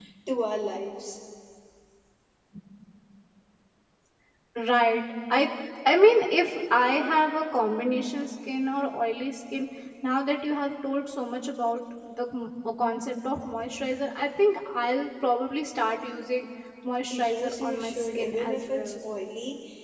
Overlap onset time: 17 s

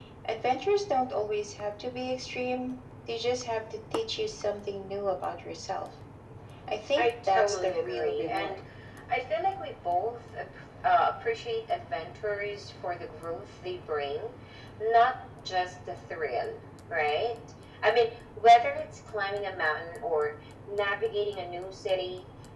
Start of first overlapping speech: 7 s

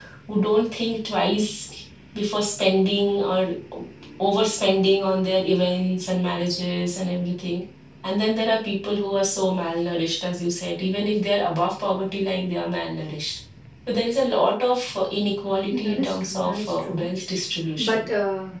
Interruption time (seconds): 16 s

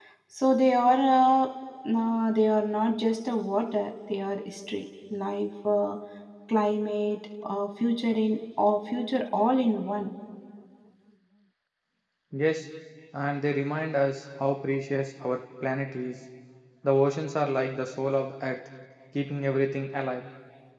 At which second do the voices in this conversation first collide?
none

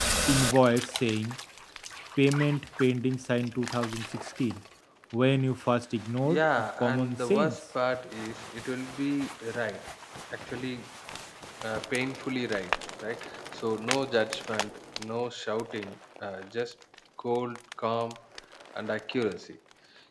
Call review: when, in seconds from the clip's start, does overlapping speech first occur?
6 s

